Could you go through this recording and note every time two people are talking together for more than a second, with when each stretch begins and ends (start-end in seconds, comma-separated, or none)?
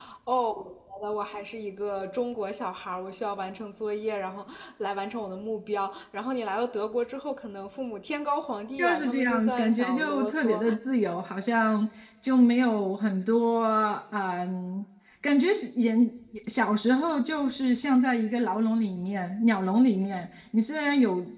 8.8-10.7